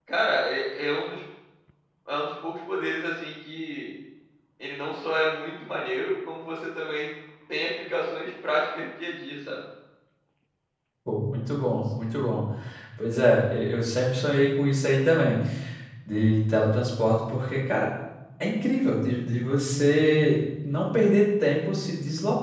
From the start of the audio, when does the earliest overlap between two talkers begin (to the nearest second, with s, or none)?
none